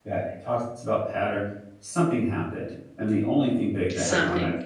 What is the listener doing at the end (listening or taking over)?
listening